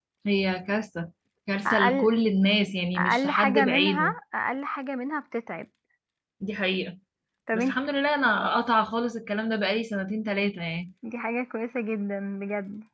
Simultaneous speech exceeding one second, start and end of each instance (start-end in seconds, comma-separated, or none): 3.0-4.2